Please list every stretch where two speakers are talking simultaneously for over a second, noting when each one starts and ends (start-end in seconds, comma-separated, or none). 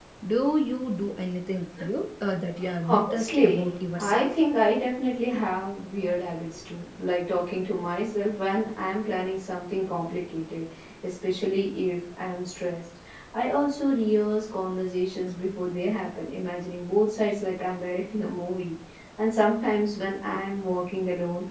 2.9-4.4